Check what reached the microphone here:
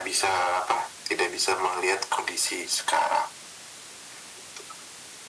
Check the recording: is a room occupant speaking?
No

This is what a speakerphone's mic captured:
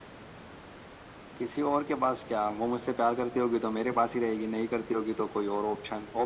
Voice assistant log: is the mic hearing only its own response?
Yes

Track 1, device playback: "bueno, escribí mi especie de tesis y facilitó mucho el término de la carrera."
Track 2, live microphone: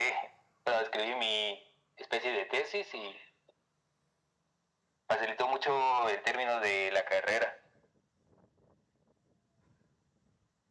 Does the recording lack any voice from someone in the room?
Yes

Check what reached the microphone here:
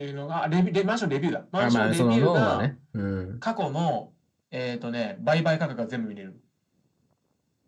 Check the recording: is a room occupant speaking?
Yes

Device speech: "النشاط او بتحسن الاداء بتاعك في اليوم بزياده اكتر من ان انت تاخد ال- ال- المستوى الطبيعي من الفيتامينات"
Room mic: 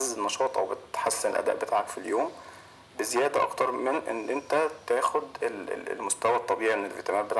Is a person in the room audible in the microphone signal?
No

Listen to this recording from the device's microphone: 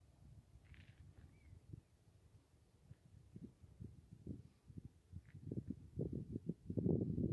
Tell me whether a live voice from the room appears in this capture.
No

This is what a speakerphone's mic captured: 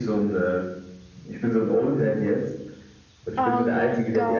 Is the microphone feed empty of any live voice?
No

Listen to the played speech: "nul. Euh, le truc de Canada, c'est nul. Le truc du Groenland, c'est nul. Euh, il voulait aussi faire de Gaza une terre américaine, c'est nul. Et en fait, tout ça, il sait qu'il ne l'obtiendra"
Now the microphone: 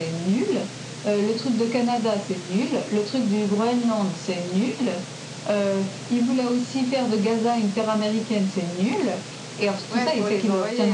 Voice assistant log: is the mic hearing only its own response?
No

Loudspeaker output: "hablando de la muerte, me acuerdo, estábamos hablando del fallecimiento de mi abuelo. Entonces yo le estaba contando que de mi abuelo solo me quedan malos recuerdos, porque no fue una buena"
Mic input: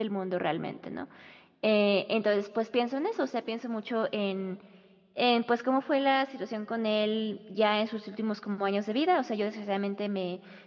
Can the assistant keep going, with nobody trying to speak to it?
No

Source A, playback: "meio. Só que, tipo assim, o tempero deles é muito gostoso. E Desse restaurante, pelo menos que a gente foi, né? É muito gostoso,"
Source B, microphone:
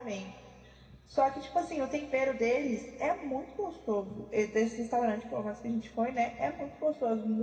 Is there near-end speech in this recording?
No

